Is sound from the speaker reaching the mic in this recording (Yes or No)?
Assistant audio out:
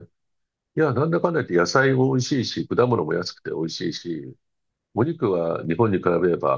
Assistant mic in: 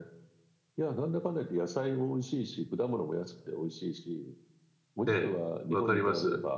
Yes